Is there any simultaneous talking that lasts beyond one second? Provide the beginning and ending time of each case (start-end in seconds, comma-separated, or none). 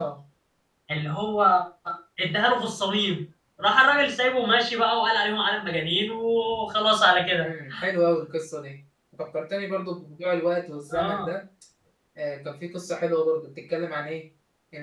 none